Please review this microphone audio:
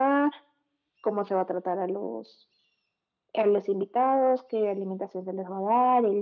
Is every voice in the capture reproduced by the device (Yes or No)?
Yes